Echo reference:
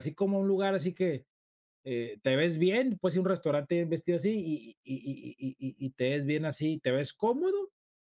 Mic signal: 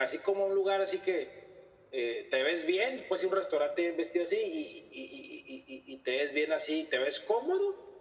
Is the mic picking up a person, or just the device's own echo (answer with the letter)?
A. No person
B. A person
A